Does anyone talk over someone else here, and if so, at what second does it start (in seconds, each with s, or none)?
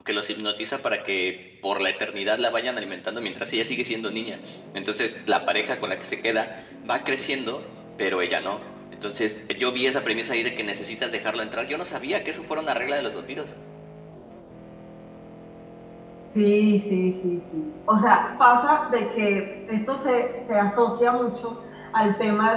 none